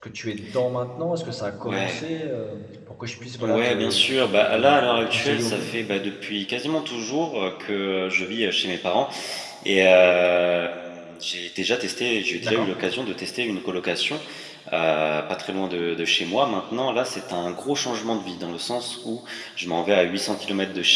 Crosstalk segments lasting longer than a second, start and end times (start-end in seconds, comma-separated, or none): 3.4-5.6